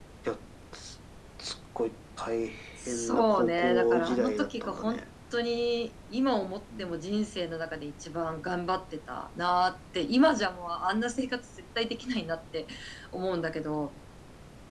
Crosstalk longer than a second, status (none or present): present